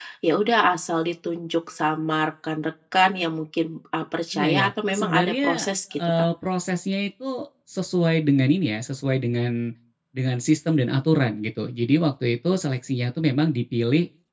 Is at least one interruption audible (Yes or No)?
Yes